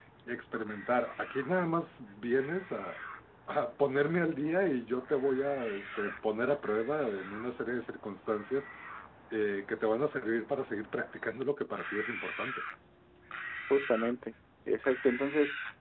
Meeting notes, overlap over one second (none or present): none